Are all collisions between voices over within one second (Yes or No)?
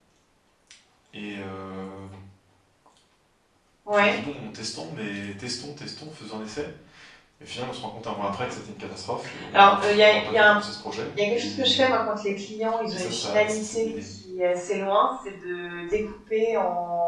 No